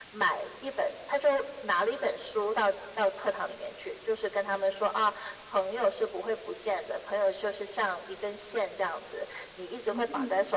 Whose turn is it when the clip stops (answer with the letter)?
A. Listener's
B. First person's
B